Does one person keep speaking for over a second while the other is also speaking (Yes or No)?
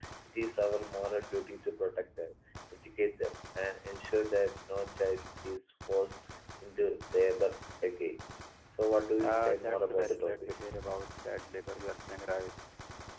Yes